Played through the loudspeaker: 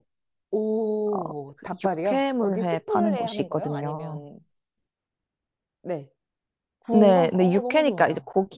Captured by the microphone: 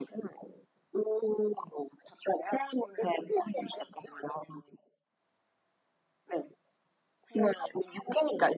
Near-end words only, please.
none

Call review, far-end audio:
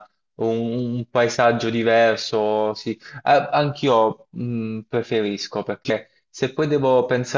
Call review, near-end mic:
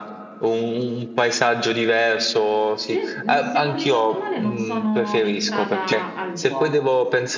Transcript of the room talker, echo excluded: cre- mm, se non ricordo male, non sono entrata al Duomo,

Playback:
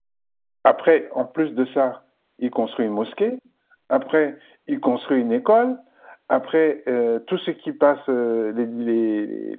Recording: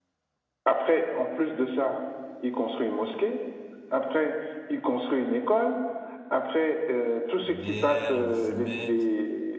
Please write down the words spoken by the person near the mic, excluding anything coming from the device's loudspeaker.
La bière, la fumette,

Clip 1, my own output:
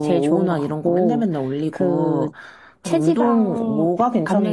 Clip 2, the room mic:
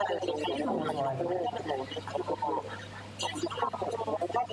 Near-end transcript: 있는 거 좋아해.

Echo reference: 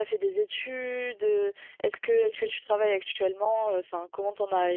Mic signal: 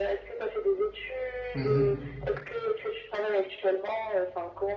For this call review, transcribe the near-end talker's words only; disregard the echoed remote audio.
Mhm.

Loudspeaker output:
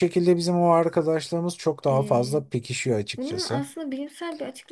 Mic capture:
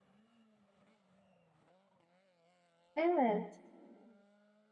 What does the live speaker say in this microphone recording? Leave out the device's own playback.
Evet.

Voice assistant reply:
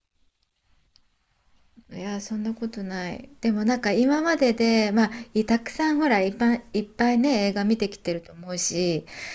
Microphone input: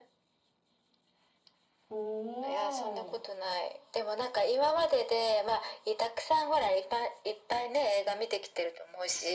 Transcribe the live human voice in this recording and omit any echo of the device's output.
おー。

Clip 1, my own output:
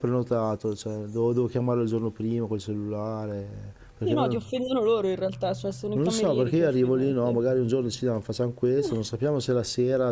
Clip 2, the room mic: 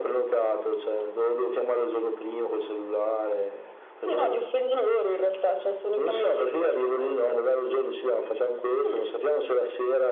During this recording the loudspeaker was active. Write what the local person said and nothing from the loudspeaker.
none

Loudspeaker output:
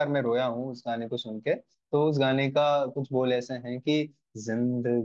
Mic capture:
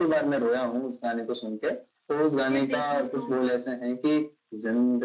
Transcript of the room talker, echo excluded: तुझे देखा तो

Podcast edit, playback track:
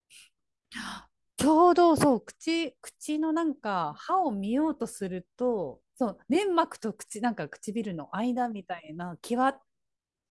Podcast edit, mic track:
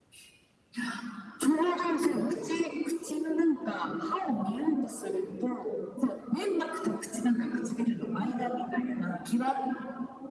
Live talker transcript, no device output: none

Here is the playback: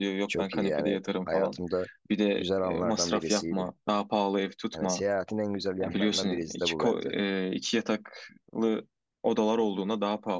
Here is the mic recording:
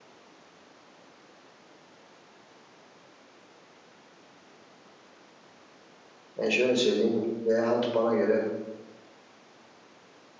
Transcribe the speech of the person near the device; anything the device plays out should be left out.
Ben şöyle söyleyeyim, seyahat bana göre

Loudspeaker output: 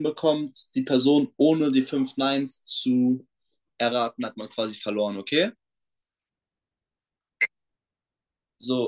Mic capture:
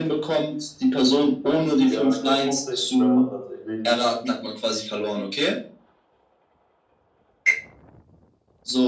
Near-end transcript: ja, ich glaube hauptsächlich Rapper tatsächlich.

